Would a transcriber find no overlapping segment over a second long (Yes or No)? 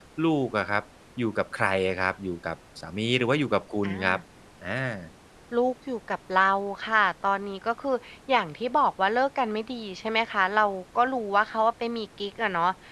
Yes